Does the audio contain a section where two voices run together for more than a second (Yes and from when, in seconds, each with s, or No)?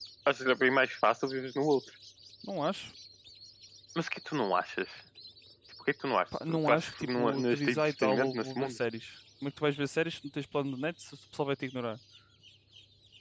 Yes, from 6.5 s